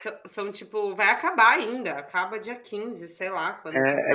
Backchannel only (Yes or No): No